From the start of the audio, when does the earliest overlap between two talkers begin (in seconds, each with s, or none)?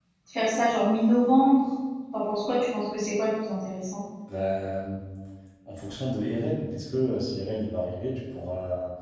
none